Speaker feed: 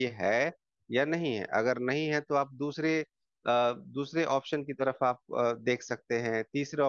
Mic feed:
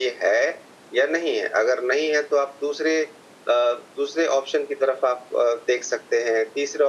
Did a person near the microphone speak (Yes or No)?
No